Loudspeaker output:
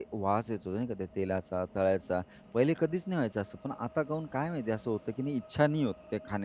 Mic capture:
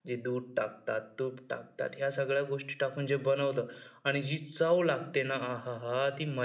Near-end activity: present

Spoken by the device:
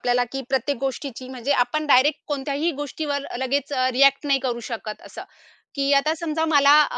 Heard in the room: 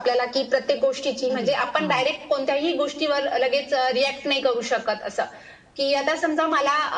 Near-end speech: present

